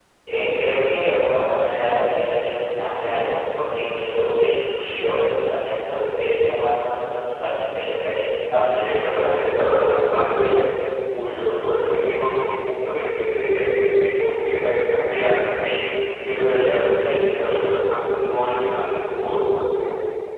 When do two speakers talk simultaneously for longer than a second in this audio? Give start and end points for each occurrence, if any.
8.8-10.0

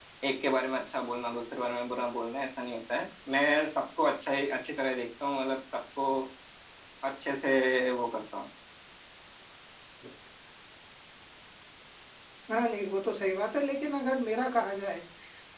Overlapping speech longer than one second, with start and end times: none

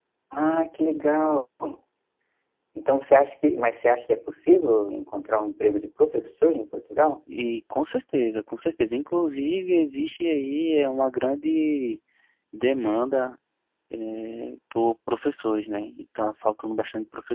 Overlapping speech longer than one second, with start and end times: none

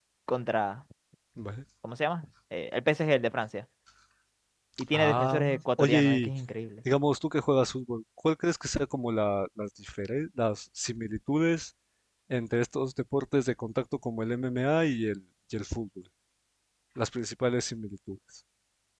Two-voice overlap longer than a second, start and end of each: 4.9-6.3

